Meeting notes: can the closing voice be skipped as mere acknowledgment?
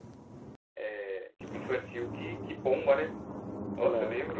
Yes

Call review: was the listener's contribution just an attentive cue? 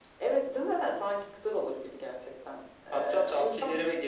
No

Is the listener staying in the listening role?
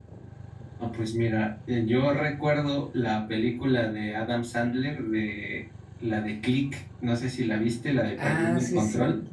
No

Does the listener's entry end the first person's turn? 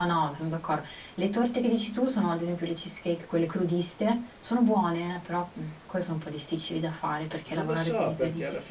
Yes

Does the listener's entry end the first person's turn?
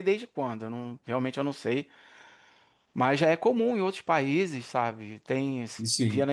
No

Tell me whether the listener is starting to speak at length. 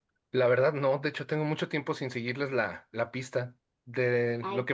No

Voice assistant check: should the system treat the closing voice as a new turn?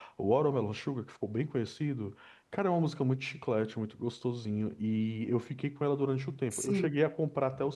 No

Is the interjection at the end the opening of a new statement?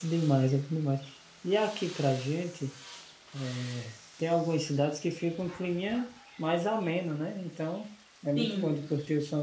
No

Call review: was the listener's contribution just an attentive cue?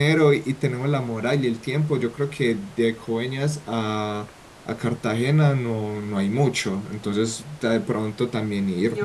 No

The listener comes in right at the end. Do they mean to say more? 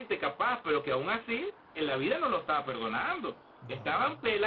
No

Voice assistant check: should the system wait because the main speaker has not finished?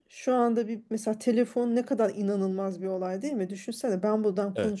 Yes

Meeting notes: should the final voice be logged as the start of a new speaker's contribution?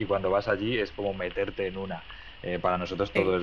No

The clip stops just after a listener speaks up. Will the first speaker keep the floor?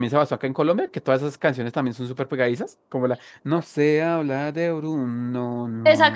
No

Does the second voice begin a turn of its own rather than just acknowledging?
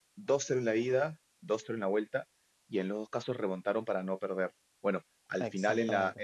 No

